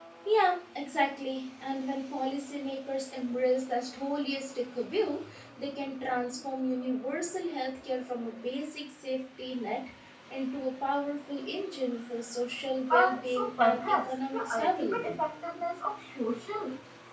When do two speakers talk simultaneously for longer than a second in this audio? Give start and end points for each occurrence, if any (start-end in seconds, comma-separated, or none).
12.9-15.1